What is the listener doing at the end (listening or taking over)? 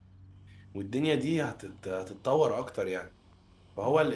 listening